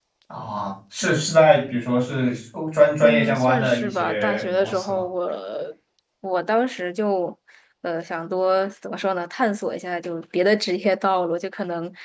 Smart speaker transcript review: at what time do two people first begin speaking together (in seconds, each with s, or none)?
3.0 s